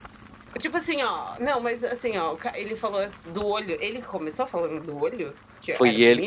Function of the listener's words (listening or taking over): taking over